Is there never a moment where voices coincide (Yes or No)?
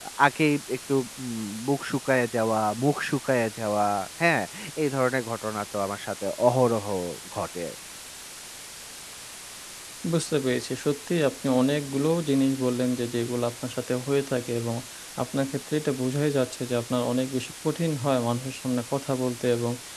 Yes